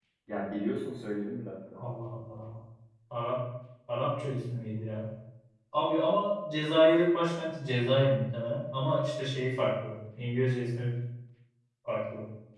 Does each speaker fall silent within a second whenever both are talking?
Yes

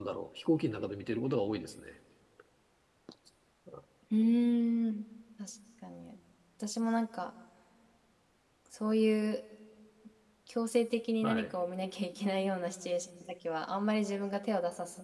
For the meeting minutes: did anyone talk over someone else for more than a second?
No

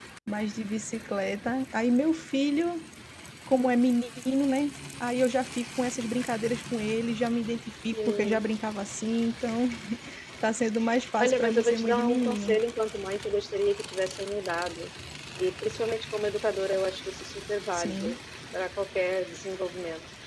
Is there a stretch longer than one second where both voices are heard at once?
Yes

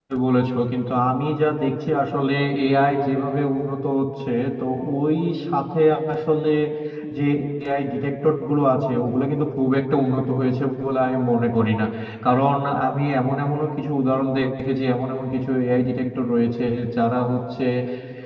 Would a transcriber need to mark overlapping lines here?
No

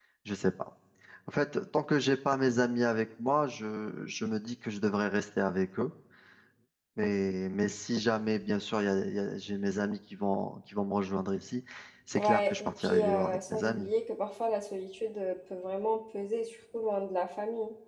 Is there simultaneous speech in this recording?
Yes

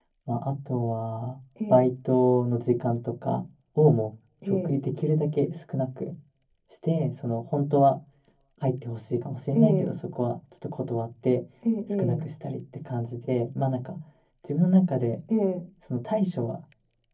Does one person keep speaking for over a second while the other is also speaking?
No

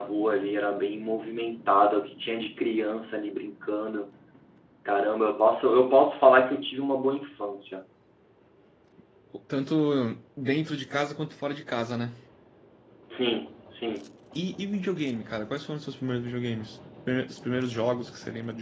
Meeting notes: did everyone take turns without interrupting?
Yes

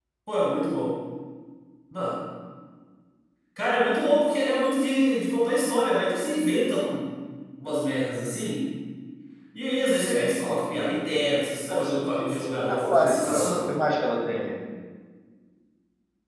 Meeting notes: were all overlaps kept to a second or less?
No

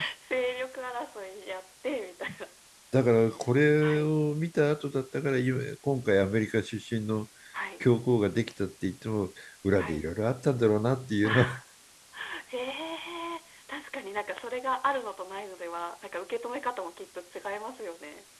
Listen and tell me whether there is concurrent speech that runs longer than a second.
No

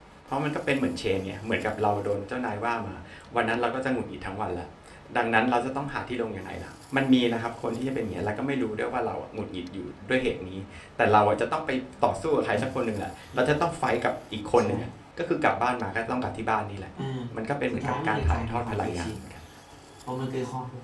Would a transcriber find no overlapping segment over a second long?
No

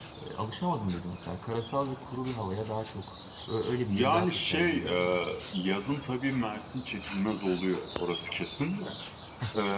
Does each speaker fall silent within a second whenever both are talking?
No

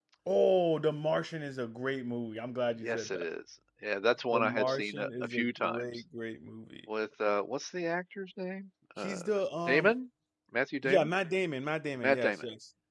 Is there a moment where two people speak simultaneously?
Yes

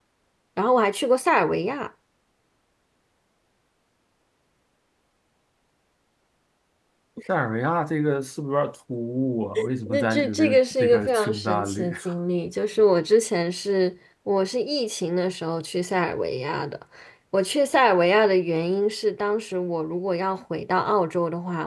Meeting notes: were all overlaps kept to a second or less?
No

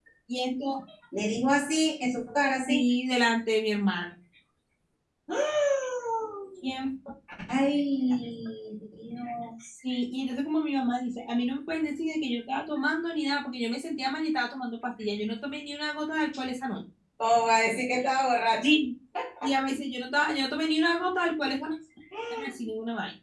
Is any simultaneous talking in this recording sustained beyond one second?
No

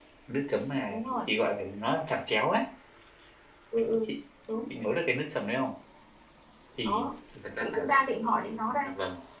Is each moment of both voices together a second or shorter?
Yes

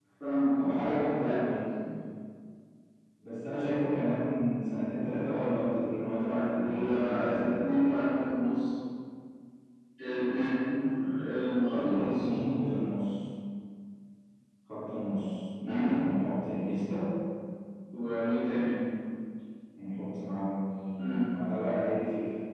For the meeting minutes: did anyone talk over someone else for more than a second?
Yes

